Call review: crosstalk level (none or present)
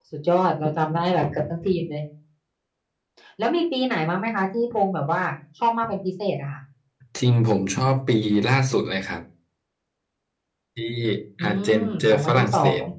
present